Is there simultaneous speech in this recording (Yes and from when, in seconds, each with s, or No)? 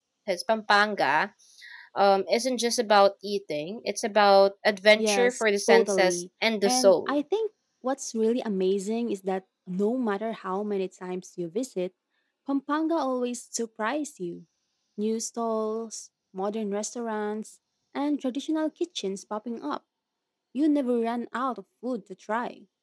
Yes, from 5.0 s